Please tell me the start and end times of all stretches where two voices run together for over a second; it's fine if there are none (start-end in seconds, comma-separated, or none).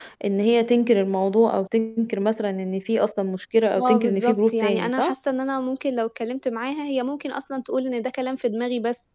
3.9-5.1